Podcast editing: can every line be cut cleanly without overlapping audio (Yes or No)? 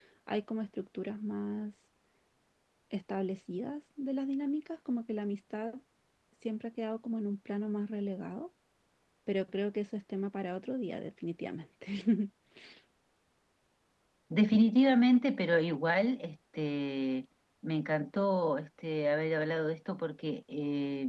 Yes